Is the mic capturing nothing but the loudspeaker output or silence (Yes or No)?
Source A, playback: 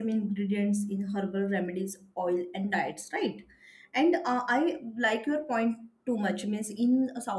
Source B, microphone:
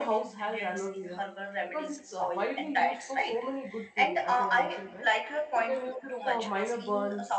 No